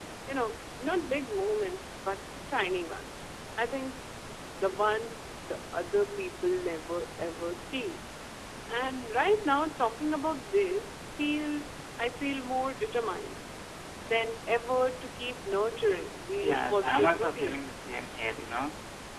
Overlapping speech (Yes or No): Yes